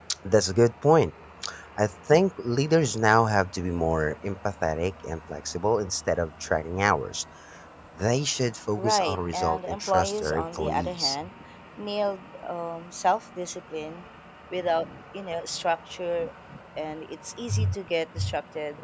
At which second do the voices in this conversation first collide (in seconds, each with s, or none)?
8.8 s